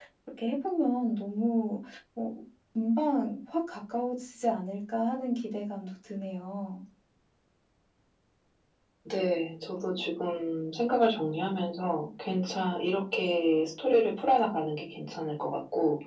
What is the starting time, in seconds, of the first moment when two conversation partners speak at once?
none

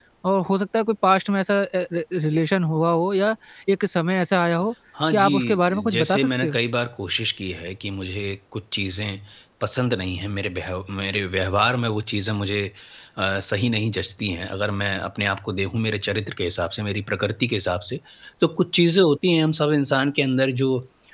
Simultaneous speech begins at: 5 s

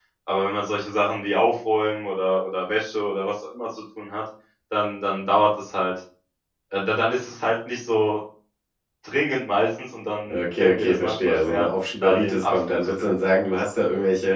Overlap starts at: 10 s

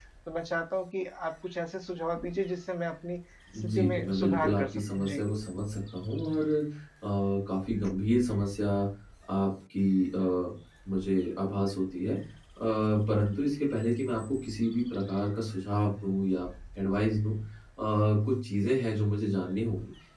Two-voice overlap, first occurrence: 4 s

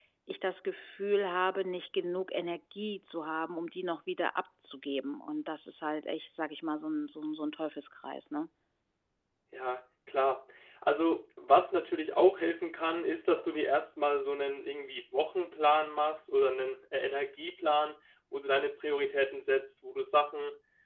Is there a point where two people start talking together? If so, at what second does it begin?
none

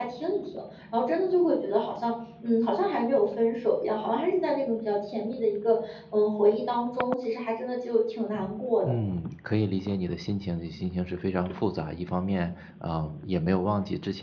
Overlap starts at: none

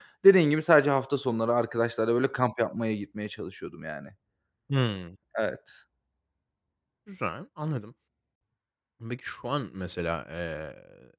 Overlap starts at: none

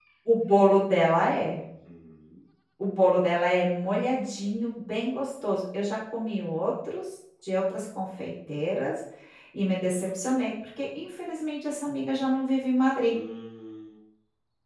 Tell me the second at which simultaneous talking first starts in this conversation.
none

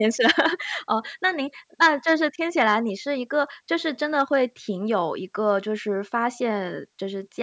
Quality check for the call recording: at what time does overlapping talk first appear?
none

